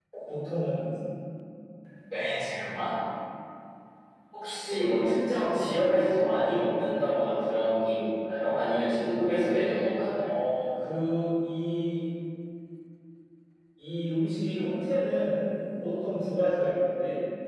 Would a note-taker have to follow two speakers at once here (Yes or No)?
No